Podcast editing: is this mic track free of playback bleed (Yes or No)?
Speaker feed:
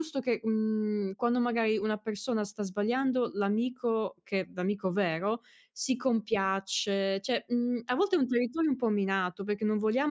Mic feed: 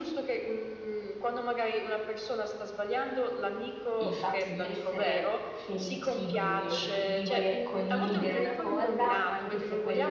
No